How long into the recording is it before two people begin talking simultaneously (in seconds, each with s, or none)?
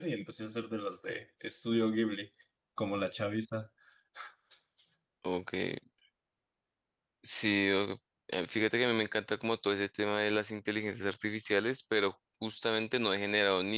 none